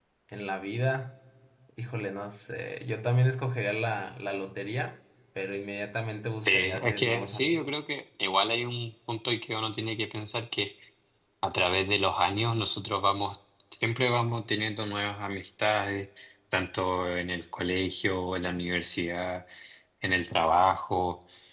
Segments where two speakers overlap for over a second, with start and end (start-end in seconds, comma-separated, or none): 6.3-7.8